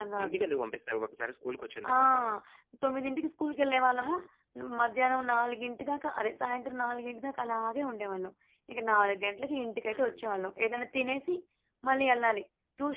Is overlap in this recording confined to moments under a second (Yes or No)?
Yes